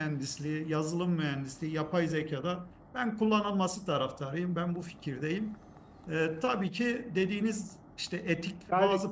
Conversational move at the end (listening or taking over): listening